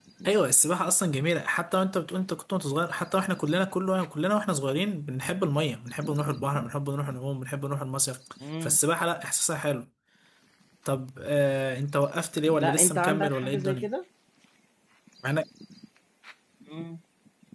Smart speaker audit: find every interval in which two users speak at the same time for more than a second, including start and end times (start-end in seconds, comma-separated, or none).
12.6-13.9